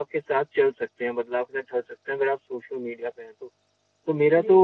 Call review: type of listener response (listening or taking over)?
listening